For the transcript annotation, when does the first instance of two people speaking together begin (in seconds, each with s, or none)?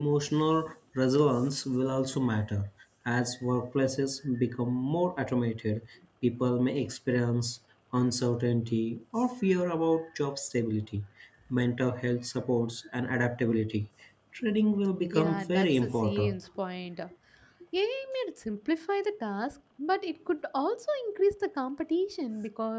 15.1 s